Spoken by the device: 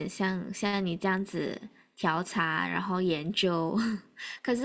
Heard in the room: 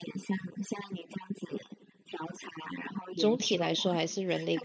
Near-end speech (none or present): present